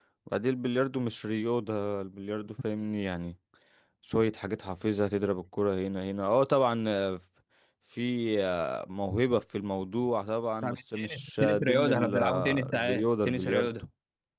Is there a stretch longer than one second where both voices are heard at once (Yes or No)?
Yes